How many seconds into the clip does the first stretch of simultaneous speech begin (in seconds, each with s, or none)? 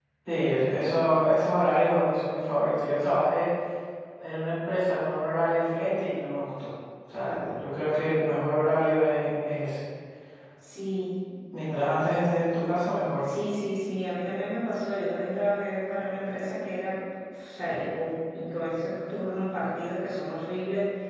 none